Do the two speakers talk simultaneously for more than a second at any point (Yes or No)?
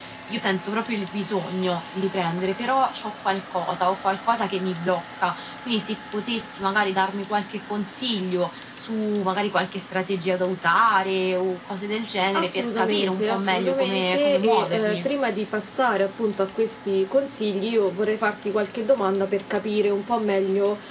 Yes